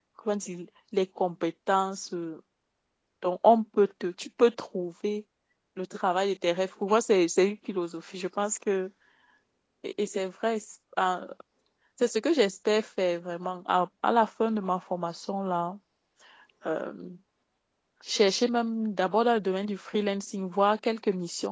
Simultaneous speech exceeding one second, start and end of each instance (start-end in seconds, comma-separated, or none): none